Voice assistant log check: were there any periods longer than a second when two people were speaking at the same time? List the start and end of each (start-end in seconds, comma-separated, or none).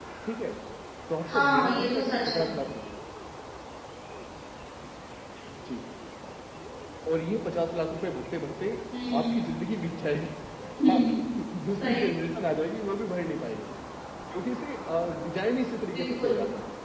1.3-2.5